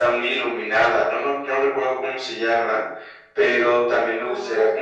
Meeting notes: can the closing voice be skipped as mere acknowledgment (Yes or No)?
Yes